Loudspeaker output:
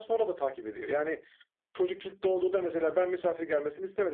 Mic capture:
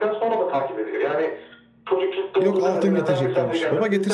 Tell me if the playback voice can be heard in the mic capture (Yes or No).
Yes